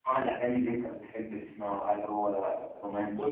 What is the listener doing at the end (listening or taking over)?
taking over